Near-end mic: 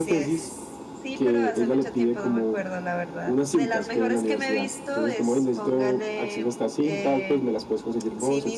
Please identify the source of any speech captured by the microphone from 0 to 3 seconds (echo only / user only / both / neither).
both